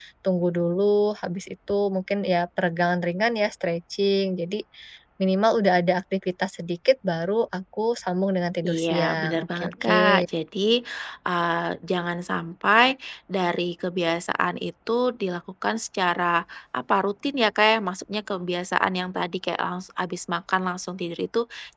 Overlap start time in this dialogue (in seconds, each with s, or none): 8.6 s